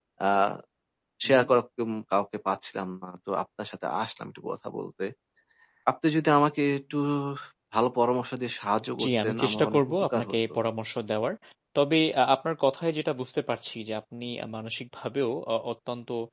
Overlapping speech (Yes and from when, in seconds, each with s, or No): Yes, from 9.0 s